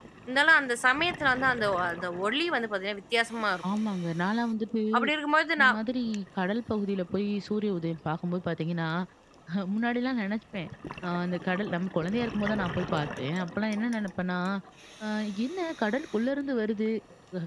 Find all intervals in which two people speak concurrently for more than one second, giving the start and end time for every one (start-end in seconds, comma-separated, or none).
none